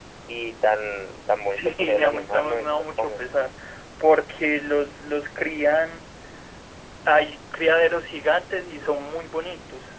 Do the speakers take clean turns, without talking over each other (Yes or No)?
No